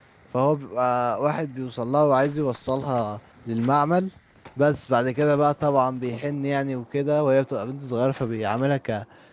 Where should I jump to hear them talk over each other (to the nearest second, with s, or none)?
none